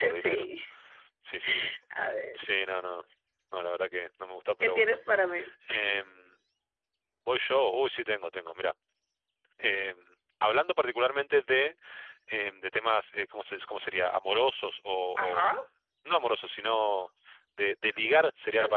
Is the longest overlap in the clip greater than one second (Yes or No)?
No